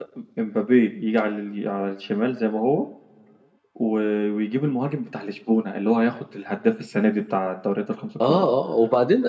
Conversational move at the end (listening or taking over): taking over